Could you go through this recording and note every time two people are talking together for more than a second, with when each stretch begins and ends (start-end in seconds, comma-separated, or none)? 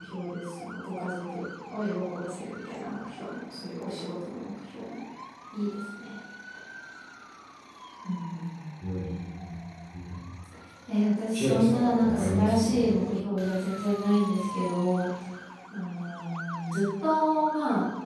11.3-12.8